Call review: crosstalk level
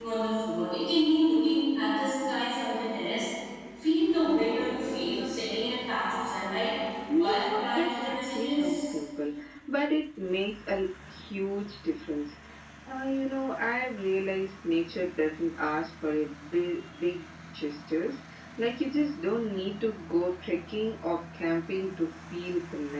present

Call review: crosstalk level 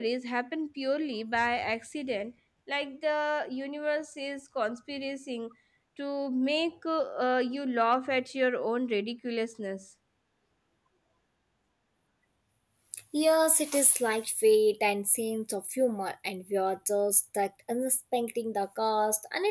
none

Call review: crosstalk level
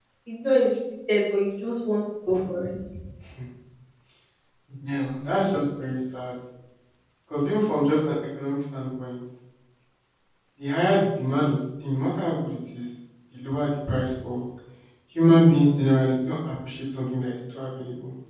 none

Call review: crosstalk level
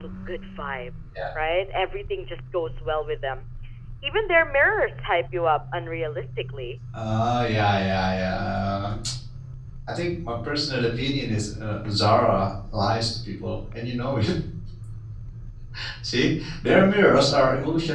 none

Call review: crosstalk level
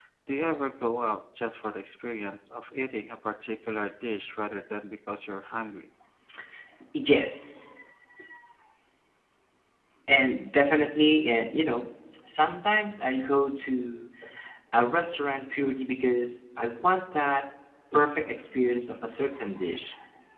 none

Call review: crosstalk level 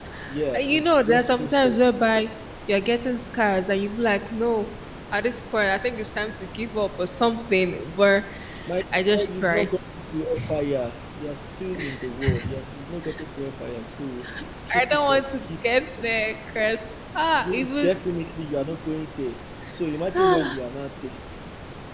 present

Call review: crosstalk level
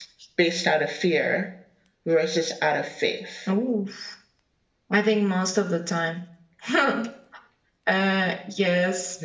none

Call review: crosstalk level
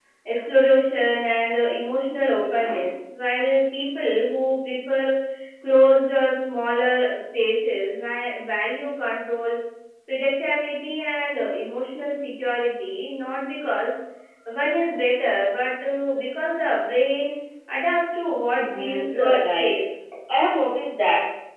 present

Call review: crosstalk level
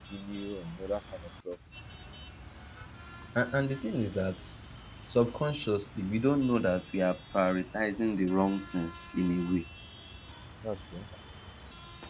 none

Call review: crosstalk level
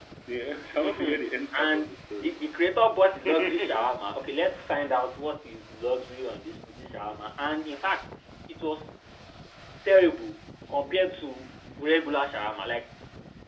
present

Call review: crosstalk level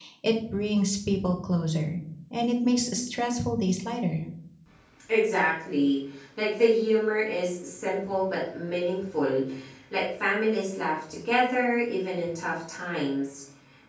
none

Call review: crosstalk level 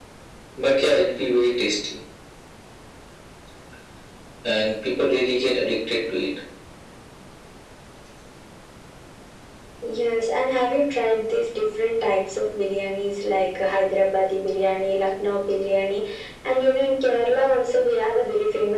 none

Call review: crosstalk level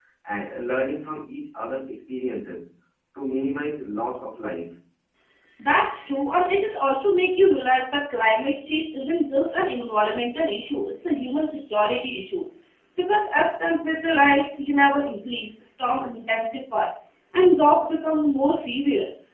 none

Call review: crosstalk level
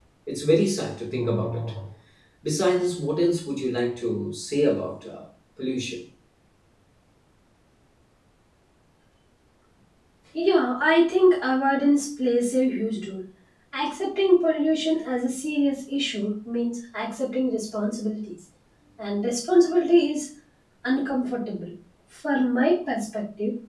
none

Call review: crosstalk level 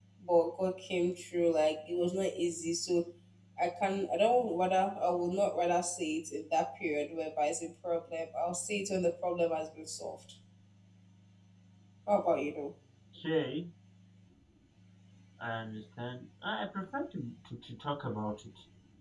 none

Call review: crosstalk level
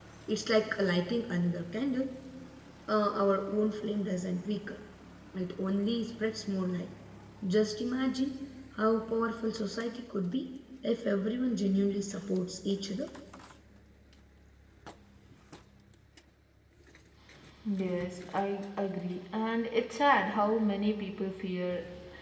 none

